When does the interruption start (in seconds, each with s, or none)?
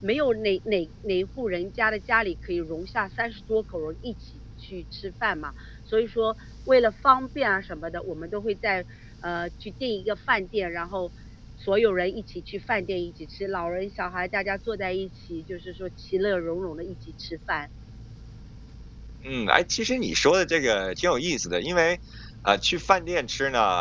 none